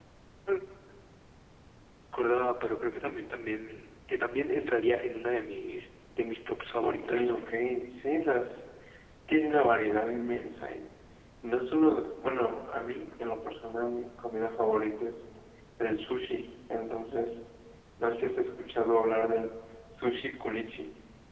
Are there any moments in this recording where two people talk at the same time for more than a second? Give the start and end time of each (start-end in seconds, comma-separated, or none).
none